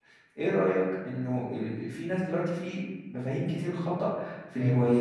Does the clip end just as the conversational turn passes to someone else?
No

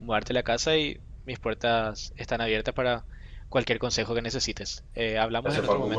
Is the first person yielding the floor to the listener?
Yes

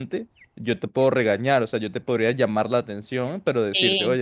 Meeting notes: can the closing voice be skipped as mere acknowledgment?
Yes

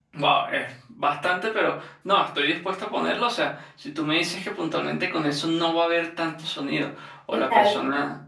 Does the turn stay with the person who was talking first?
Yes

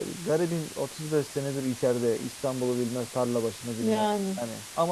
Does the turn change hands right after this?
No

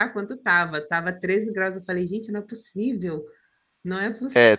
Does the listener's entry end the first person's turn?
No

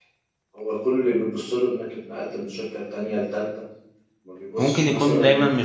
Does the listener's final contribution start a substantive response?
Yes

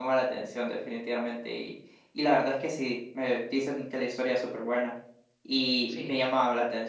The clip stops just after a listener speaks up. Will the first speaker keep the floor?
Yes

